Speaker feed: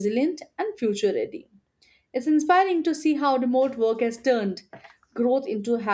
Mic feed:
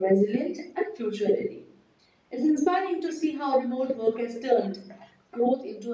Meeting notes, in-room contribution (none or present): none